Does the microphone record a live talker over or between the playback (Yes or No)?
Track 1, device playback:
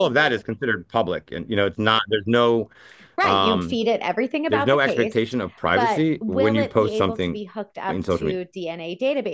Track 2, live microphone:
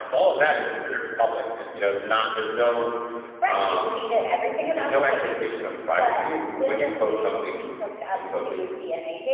No